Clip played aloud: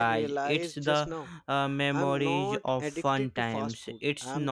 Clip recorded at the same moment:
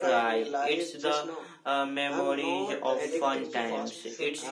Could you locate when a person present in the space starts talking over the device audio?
2.5 s

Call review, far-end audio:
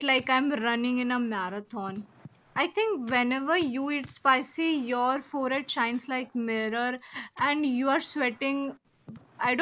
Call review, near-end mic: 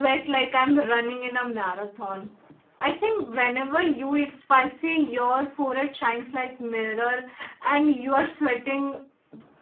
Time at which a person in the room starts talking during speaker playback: none

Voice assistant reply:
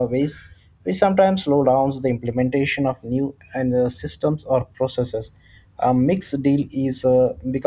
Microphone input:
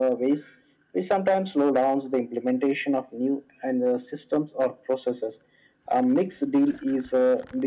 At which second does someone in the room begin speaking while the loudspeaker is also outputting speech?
none

